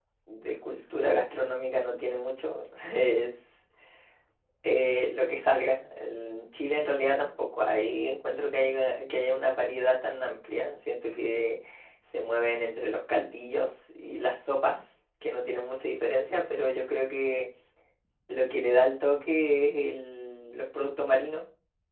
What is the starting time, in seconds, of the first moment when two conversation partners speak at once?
none

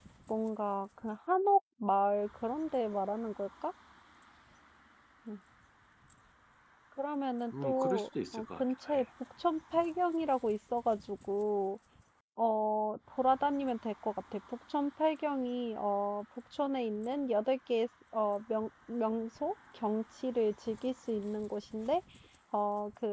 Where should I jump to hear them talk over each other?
7.6 s

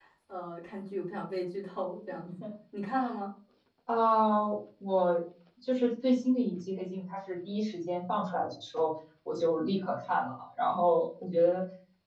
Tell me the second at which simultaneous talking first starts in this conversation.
none

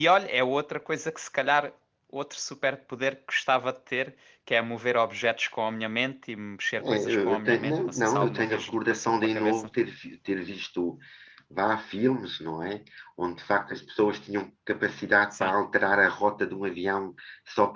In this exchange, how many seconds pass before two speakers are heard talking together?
6.8 s

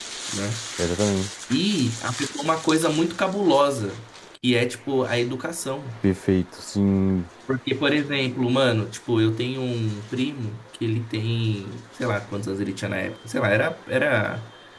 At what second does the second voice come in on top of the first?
none

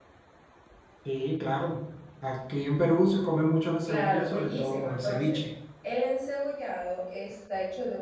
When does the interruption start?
3.9 s

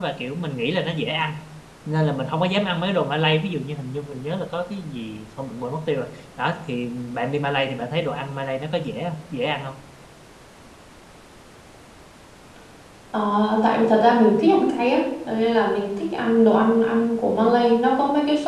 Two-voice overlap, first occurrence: none

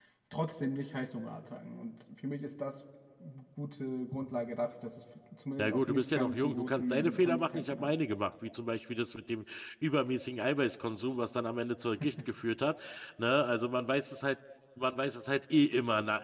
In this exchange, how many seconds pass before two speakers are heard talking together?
5.6 s

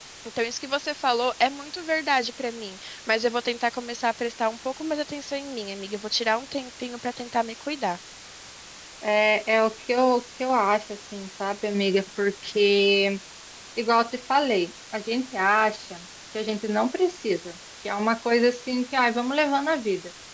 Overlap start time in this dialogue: none

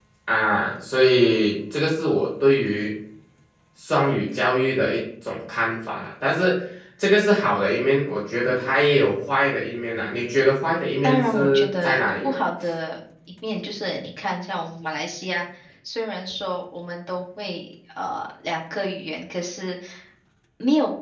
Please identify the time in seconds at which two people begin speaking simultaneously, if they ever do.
11.0 s

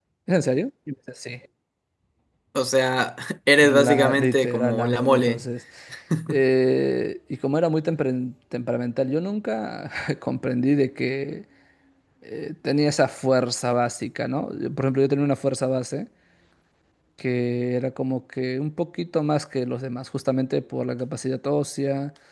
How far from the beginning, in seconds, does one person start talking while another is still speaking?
3.6 s

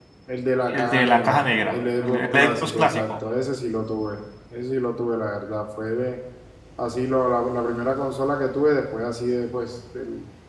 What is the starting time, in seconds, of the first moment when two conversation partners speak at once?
0.7 s

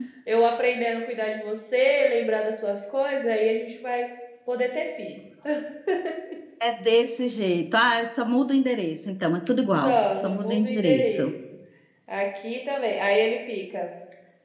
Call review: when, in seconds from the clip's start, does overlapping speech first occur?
9.8 s

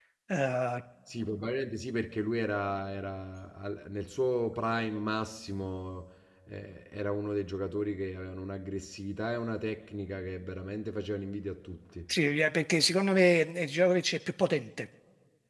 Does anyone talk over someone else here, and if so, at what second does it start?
none

